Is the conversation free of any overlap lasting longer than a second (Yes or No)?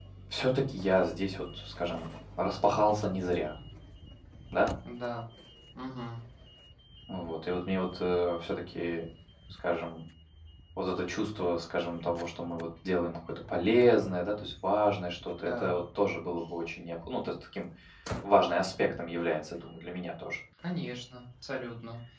Yes